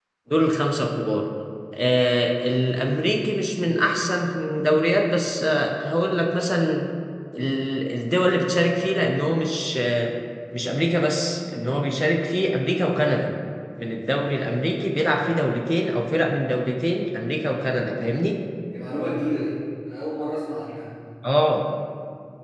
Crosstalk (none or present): none